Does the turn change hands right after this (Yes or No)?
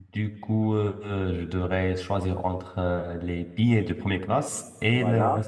Yes